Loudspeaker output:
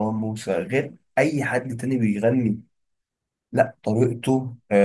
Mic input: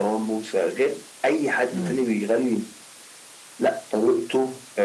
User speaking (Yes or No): Yes